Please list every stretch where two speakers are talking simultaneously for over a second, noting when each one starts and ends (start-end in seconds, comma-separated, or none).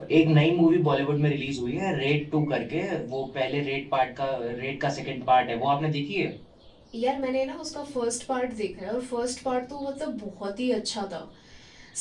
none